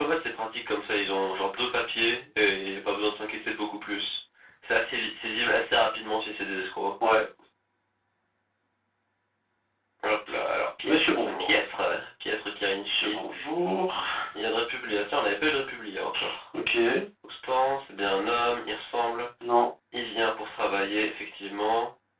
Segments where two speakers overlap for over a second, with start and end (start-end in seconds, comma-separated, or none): none